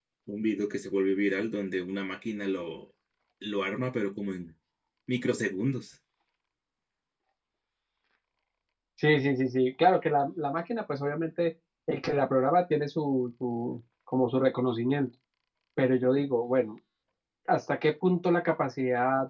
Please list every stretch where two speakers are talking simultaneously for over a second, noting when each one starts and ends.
none

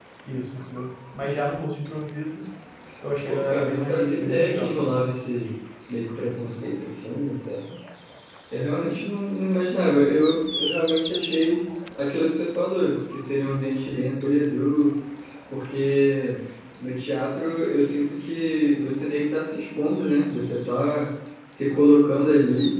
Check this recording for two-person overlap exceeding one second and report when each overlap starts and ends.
3.3-5.0

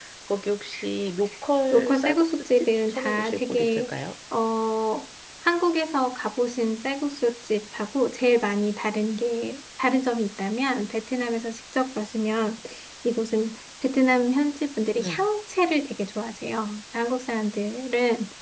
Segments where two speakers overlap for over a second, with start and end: 1.7-3.9

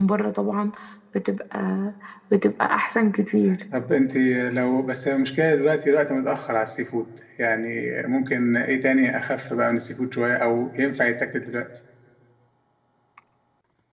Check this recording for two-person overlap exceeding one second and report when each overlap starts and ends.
none

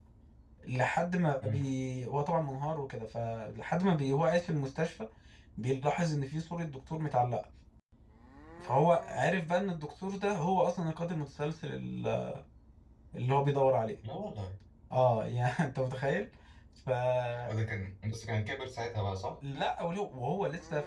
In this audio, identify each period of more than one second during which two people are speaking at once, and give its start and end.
none

